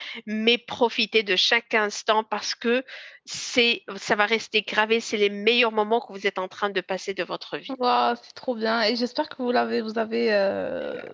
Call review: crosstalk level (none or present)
none